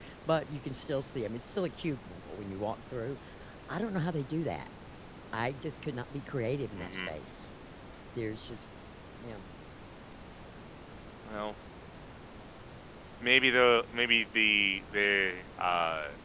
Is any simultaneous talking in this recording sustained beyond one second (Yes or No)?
No